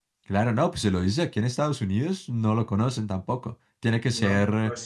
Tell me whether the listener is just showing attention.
No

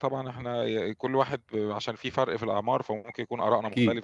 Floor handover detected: Yes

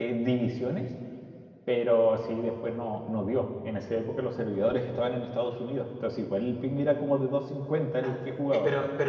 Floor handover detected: Yes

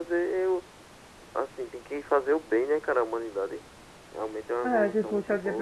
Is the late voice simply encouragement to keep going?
No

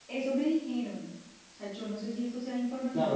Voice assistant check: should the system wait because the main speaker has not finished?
No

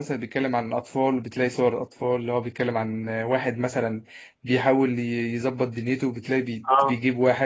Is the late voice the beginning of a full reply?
No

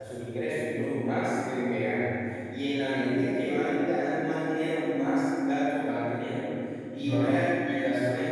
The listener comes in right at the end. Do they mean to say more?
No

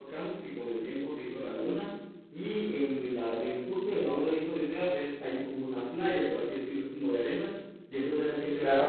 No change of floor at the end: Yes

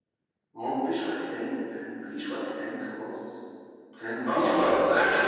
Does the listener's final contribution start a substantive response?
Yes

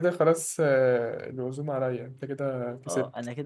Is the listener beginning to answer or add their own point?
Yes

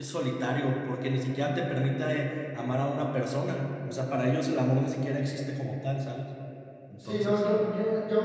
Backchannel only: No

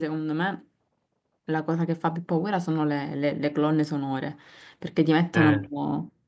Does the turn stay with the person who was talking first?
Yes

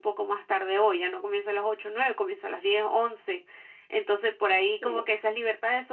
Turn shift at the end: No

